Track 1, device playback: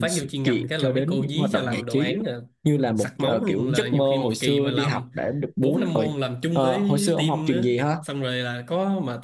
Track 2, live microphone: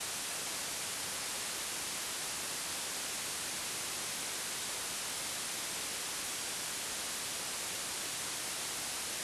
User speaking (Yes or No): No